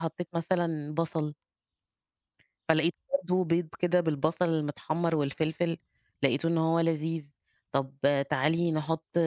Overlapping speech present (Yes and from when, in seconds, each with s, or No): No